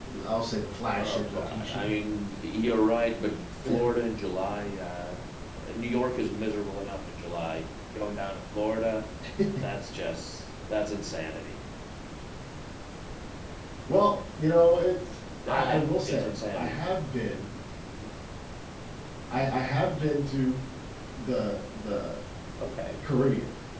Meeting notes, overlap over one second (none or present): present